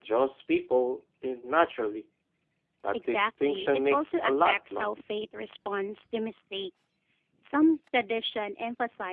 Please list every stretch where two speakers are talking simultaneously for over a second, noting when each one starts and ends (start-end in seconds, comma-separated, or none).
2.9-4.9